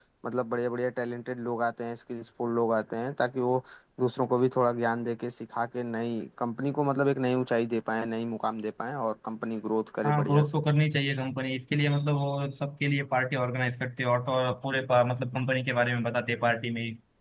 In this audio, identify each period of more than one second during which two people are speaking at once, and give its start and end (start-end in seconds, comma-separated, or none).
none